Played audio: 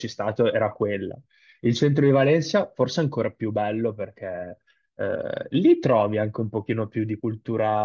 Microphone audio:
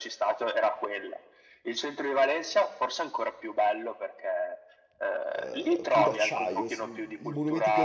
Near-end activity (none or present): present